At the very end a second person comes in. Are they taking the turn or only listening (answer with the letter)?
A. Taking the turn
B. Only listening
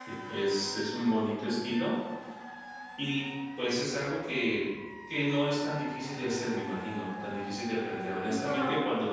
B